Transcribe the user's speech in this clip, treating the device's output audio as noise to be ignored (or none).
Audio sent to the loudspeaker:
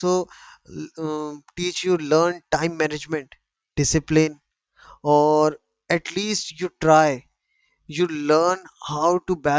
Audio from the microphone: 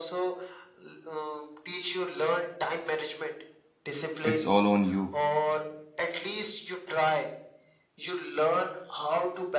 it's all on you.